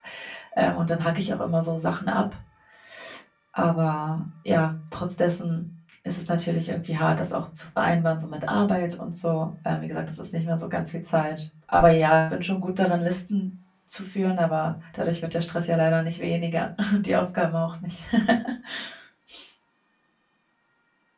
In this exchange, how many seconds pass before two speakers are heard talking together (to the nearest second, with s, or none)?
none